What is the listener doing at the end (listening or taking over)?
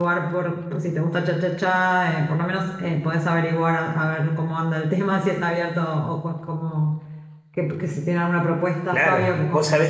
taking over